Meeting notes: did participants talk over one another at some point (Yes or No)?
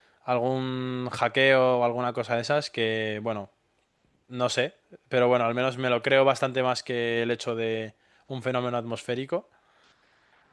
No